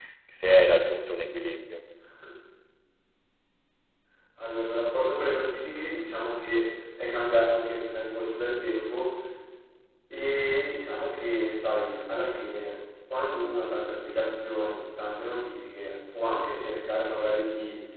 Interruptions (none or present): none